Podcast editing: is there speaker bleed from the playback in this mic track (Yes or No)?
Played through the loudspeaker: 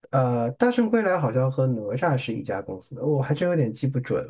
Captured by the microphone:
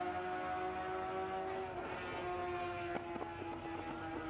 No